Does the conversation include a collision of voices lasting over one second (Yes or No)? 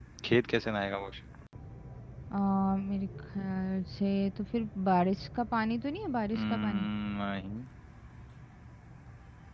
No